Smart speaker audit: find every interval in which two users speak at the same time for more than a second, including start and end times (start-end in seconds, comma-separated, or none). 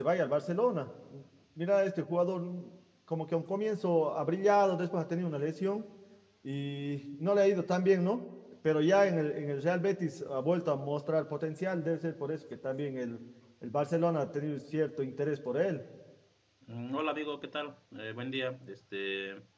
none